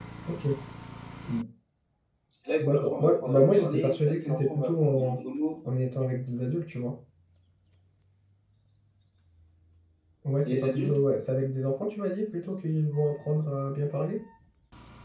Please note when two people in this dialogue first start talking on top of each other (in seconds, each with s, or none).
2.6 s